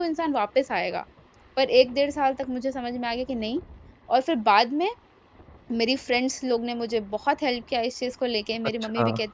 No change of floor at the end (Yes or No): Yes